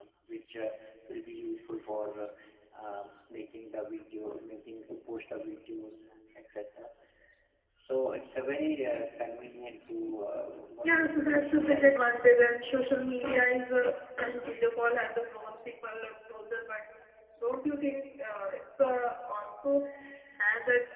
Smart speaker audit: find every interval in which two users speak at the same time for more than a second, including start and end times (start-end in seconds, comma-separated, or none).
10.8-12.1